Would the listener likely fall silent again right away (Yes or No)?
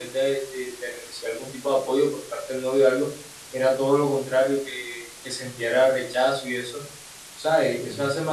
Yes